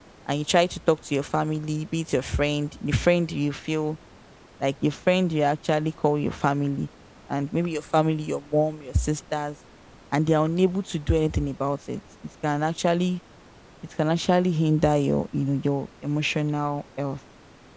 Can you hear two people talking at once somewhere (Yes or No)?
No